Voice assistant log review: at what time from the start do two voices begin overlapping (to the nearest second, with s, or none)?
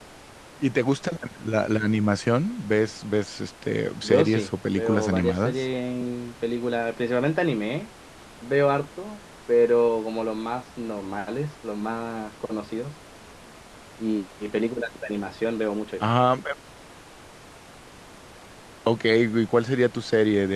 4 s